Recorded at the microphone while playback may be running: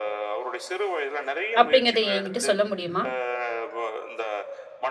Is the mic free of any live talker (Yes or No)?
No